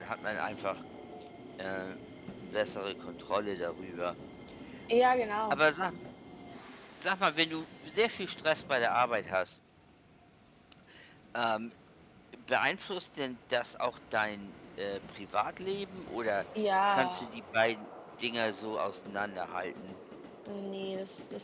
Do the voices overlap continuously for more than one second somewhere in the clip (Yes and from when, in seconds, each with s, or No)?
No